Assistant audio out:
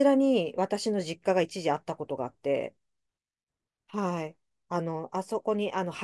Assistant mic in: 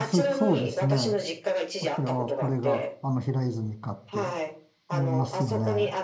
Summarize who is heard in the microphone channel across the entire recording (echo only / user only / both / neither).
both